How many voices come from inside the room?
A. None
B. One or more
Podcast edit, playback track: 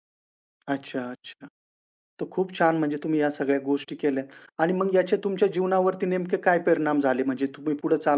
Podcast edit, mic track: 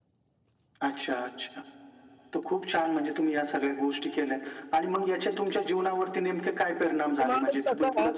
B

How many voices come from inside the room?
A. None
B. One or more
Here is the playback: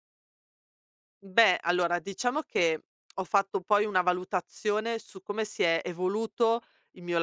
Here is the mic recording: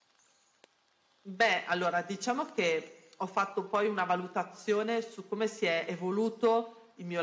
A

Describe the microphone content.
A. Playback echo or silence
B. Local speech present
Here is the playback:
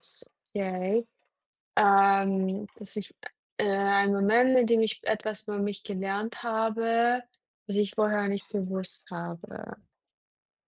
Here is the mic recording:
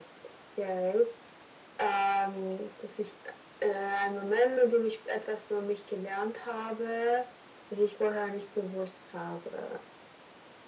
A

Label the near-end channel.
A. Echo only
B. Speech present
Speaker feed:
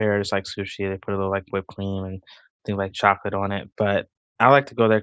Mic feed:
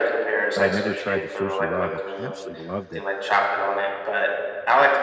B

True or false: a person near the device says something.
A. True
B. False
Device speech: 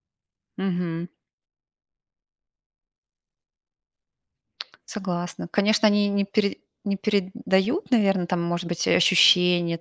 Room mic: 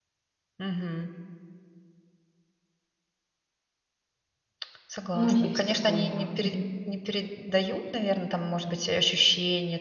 A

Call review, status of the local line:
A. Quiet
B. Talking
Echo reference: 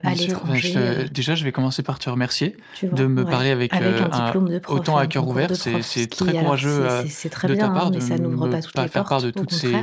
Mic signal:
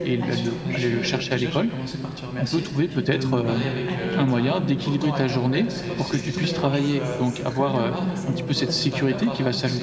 B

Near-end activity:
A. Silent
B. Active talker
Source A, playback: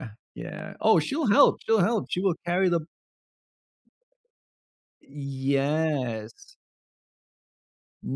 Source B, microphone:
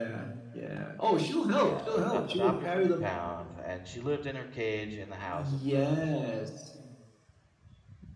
B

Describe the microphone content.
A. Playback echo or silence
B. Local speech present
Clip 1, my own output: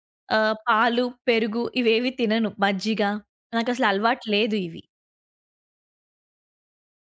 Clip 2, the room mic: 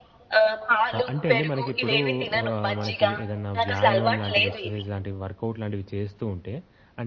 B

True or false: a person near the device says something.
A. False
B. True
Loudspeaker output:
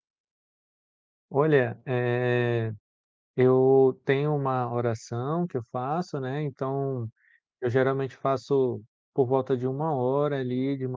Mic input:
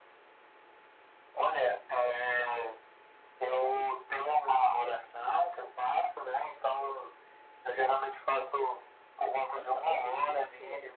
B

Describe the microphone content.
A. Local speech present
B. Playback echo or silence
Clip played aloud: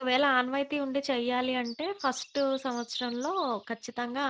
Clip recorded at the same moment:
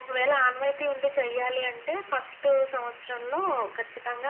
B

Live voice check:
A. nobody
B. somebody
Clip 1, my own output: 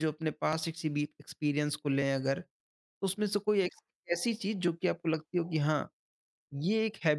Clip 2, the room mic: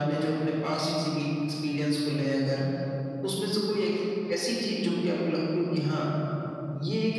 A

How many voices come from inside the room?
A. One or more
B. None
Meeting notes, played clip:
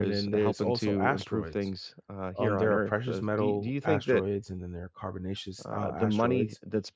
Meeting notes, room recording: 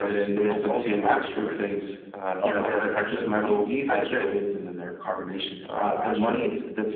B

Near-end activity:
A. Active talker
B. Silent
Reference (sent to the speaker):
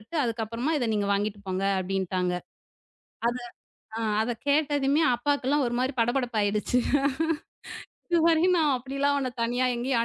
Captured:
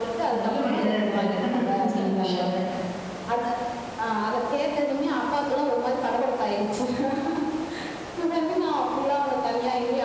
A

